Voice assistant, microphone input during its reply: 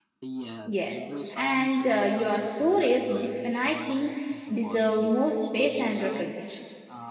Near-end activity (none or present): present